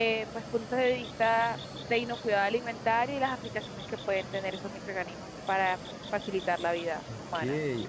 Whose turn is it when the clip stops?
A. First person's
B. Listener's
B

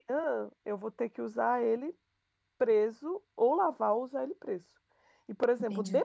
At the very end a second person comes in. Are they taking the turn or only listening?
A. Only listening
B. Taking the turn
A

